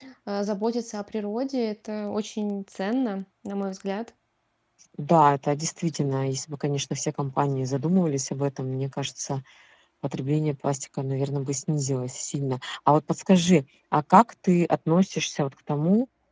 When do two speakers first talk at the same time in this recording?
none

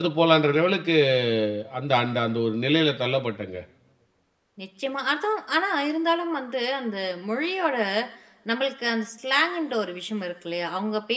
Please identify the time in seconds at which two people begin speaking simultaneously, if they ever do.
none

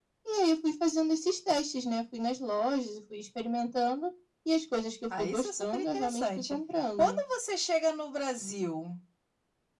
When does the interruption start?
5 s

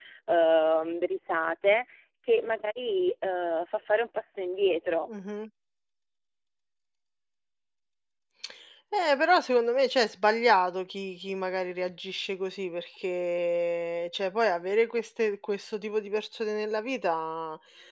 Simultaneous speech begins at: none

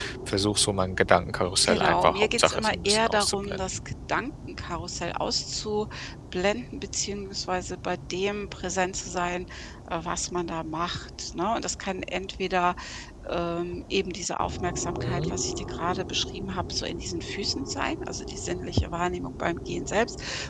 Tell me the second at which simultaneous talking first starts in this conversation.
2 s

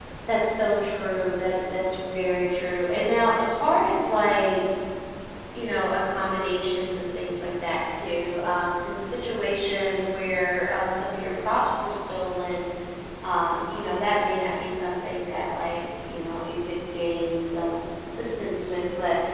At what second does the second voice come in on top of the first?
none

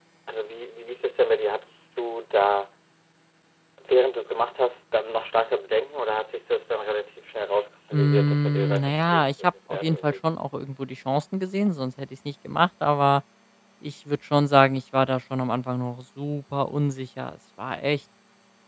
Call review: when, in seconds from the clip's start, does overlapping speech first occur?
8 s

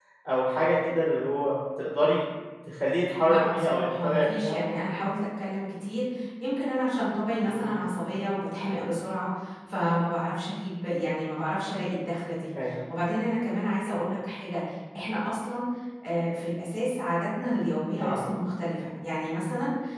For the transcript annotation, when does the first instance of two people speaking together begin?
3 s

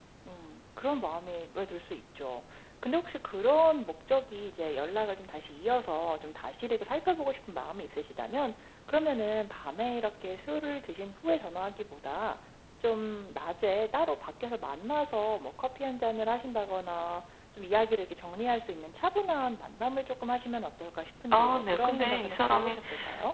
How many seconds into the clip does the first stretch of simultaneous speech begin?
21 s

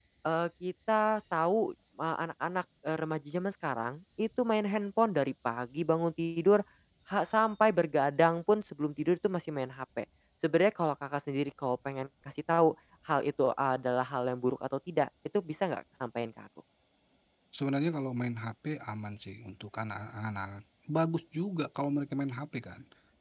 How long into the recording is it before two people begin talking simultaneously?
none

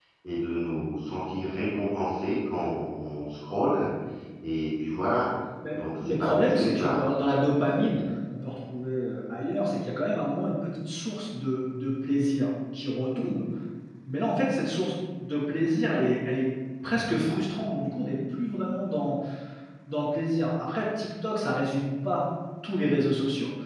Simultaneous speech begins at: 6 s

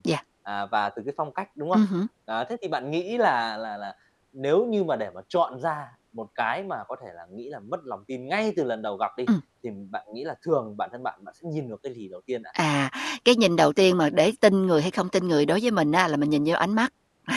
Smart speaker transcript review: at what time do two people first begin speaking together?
none

